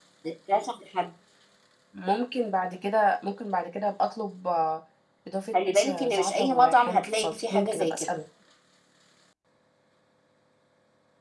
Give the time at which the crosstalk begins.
5.5 s

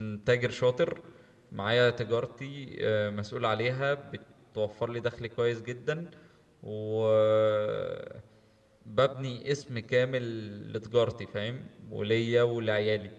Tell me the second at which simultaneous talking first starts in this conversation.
none

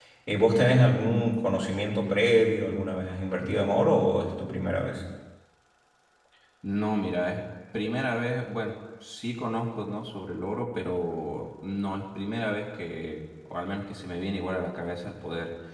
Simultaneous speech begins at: none

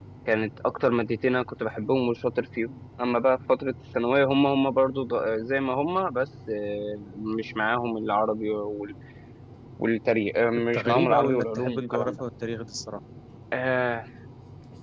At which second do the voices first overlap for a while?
10.6 s

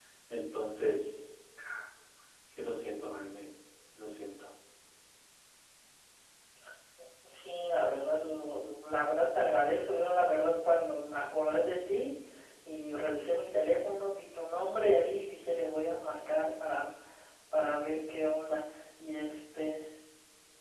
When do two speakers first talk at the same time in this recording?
none

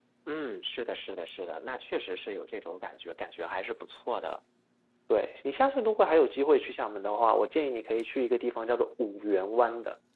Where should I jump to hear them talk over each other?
none

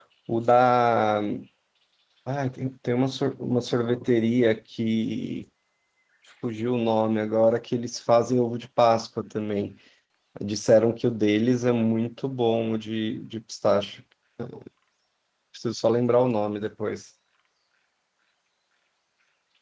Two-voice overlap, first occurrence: none

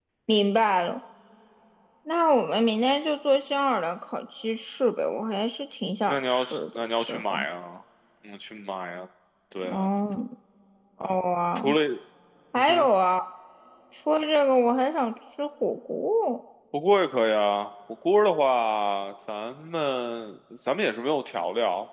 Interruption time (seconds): 6.1 s

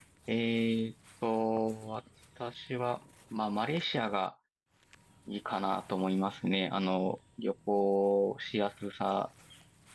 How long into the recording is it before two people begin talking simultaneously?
none

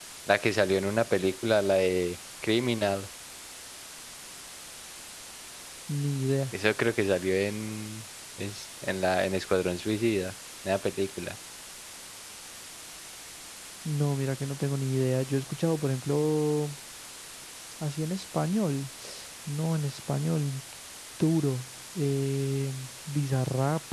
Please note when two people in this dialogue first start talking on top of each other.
none

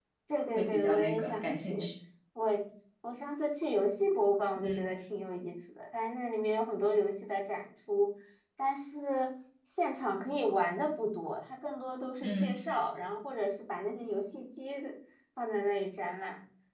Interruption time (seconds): 0.6 s

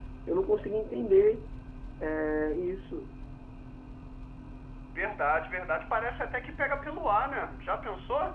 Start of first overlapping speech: none

